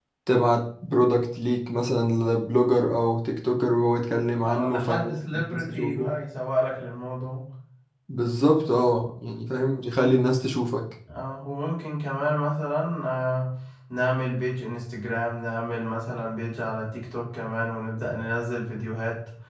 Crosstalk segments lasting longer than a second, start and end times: 4.4-6.1

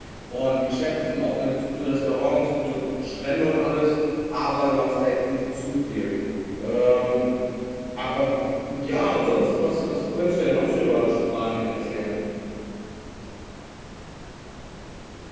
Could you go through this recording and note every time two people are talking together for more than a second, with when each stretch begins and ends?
none

